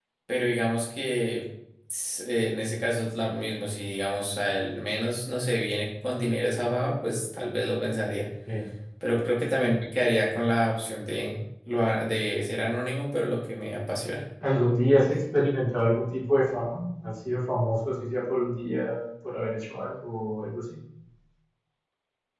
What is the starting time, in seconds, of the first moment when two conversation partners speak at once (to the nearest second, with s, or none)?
none